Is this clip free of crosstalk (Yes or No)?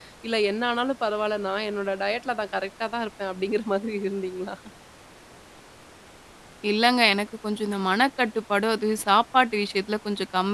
Yes